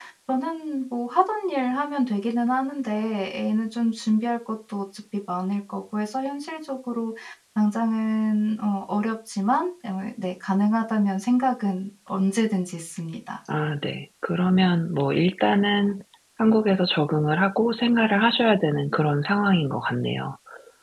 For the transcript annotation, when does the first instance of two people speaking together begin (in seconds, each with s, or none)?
none